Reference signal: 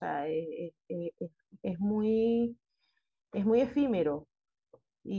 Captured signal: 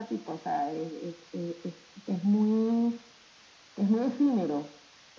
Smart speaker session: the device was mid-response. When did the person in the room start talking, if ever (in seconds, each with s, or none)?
none